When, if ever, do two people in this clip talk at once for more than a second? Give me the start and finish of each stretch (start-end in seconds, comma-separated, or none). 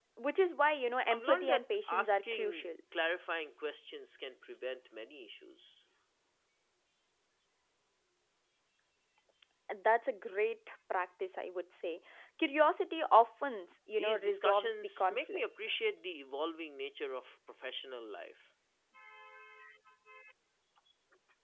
1.1-2.7, 14.0-15.4